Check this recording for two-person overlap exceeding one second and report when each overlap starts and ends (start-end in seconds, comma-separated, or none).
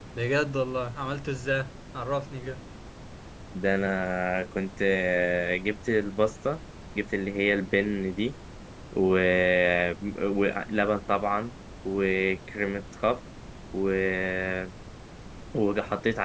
none